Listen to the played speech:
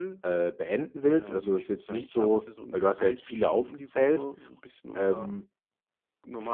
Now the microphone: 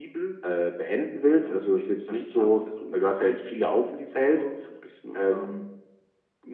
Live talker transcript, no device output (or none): none